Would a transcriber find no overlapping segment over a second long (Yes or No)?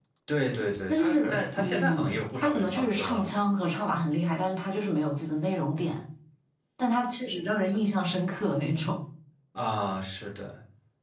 No